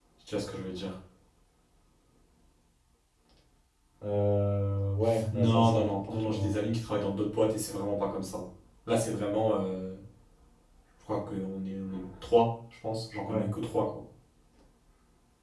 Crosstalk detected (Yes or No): Yes